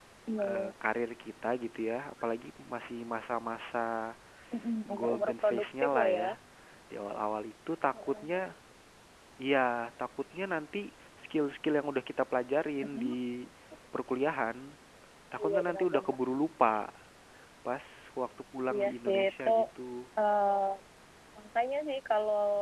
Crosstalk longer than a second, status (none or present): present